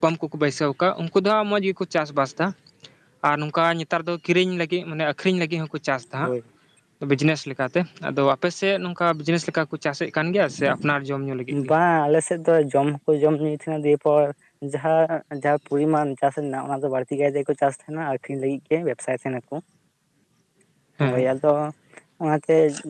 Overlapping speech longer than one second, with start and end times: none

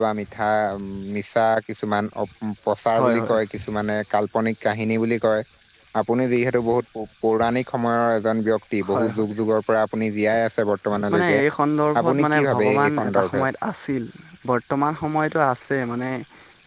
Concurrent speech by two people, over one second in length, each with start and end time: 12.0-13.4

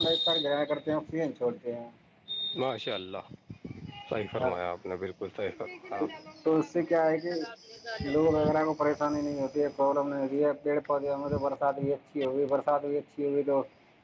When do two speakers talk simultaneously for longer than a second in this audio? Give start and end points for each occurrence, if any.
none

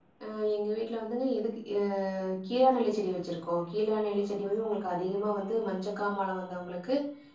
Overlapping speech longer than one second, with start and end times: none

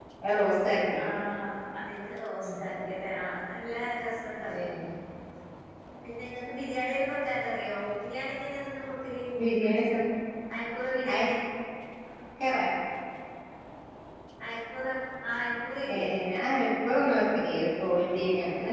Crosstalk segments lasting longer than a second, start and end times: none

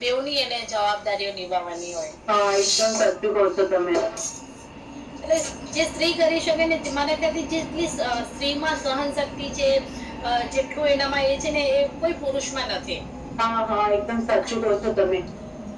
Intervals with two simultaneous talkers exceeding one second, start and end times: none

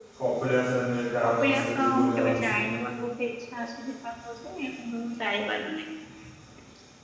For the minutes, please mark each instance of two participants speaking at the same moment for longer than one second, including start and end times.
1.2-2.5

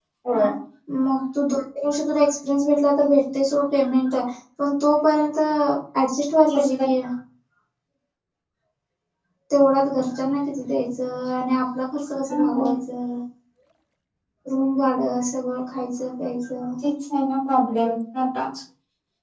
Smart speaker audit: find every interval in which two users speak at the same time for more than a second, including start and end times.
none

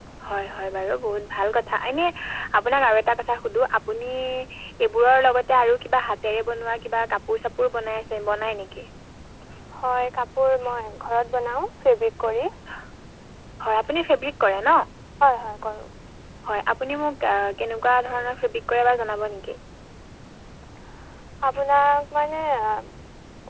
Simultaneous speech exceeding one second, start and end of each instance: none

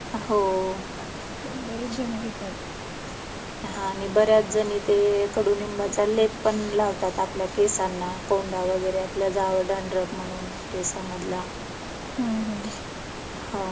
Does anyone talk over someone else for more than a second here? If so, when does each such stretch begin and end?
none

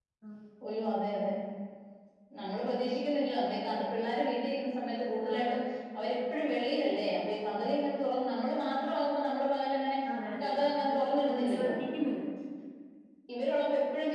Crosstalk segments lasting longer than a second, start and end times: 10.4-11.7

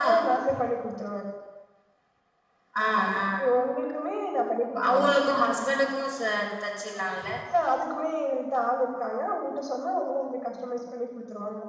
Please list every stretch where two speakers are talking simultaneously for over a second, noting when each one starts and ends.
none

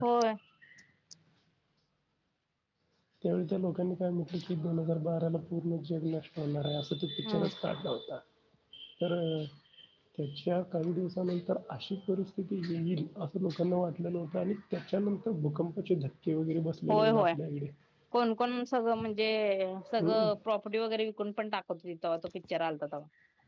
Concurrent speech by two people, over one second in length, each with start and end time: none

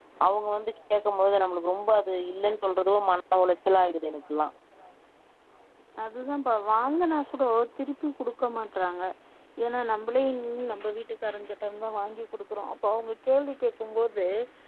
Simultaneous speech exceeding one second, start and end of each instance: none

